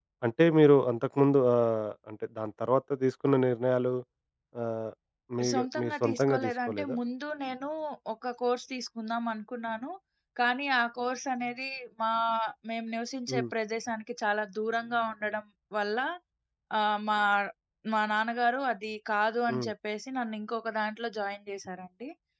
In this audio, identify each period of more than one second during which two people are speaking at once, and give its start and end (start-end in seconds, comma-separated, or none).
5.5-7.0